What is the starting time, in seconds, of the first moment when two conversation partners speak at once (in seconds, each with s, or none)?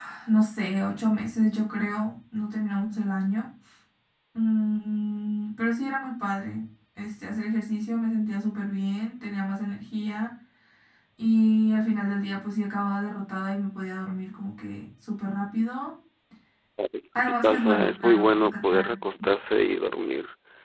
17.2 s